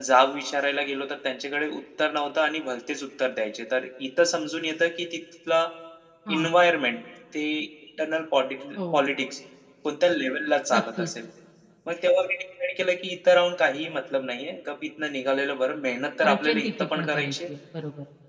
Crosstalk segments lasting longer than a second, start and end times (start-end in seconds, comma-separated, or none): 16.2-17.5